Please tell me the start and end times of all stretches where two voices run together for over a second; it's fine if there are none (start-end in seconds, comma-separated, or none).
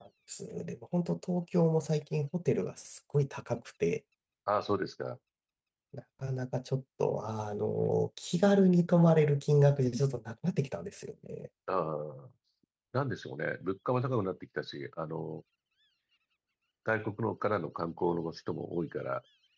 none